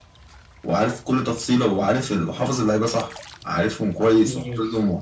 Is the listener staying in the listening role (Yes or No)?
Yes